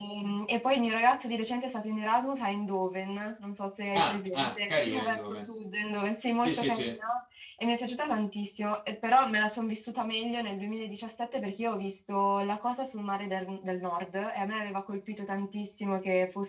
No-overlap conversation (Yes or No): No